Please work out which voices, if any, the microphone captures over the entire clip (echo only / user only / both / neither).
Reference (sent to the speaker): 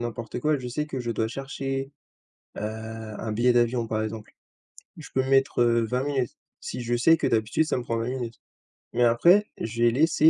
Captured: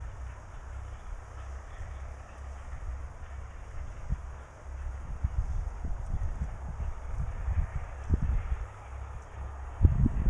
neither